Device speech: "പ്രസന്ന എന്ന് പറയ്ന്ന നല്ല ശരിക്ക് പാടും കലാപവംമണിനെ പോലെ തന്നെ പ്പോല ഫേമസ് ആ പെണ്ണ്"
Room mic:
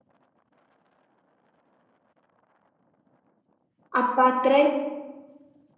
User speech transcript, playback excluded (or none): അപ്പൊ അത്രേം